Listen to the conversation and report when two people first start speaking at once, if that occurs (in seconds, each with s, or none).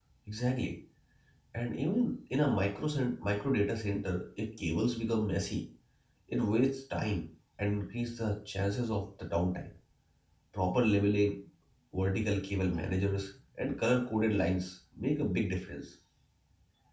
none